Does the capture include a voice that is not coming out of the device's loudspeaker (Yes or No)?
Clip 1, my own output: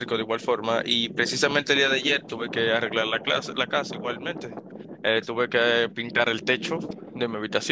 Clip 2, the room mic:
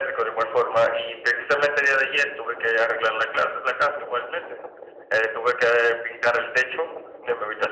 No